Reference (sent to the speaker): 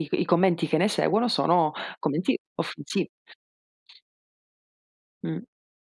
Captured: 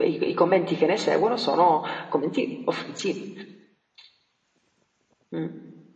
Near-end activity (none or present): none